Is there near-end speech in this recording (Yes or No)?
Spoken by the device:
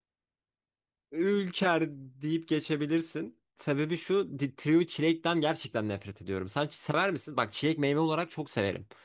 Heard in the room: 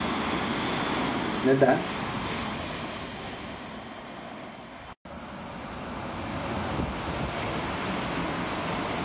Yes